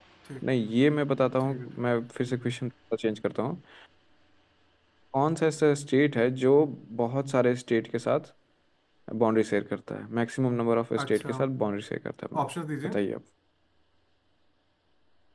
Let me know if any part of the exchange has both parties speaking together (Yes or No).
Yes